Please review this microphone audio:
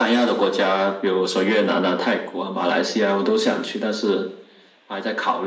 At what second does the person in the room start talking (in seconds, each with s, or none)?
none